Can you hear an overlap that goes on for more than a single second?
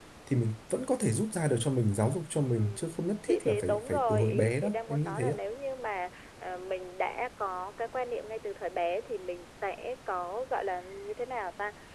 Yes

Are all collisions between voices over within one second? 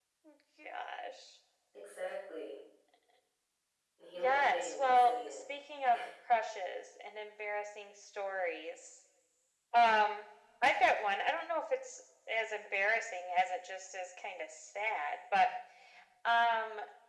No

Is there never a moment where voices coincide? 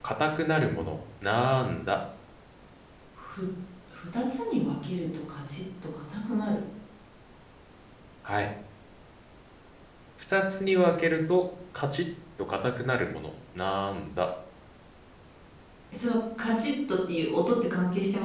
Yes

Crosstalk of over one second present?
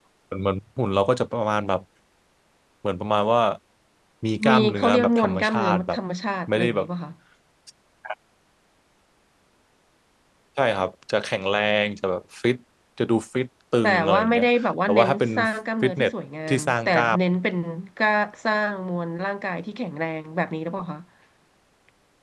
Yes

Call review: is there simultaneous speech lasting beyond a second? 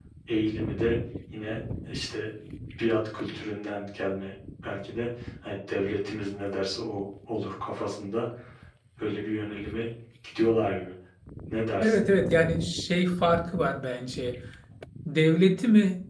No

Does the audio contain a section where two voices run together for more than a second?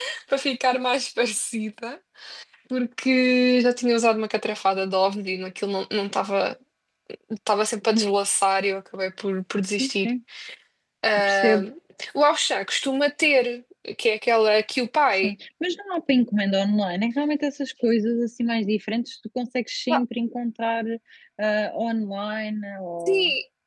No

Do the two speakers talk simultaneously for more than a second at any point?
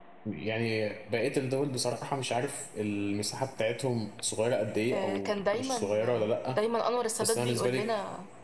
Yes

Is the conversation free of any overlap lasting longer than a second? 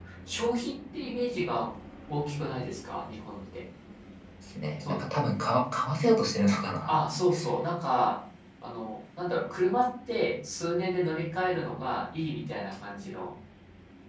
Yes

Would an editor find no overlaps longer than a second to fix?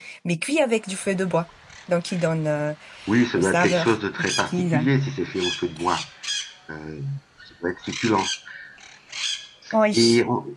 No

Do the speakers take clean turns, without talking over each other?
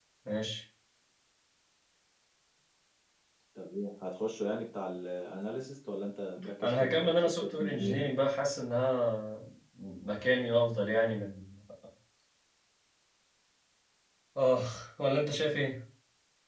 No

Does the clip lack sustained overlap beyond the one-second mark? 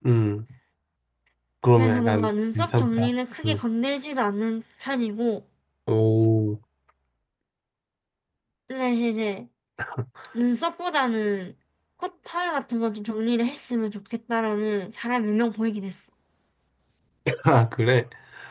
No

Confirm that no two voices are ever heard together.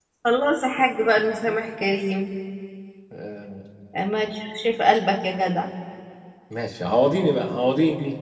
Yes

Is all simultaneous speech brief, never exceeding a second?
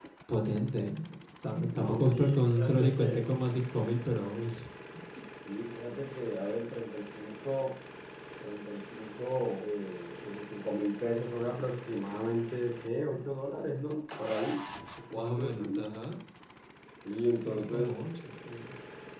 No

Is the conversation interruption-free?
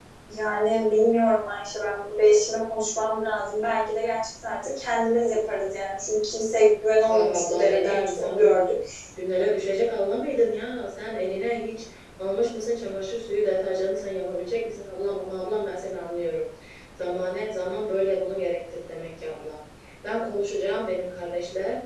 No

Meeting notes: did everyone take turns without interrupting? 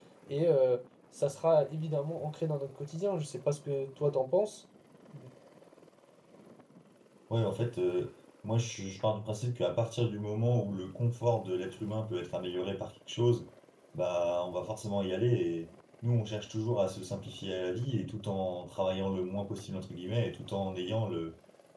Yes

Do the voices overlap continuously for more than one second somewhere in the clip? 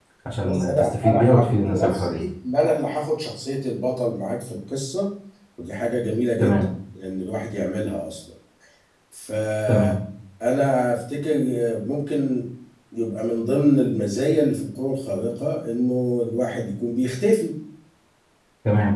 Yes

